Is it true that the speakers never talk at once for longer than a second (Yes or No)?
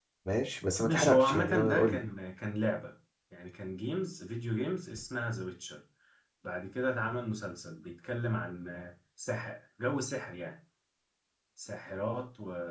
No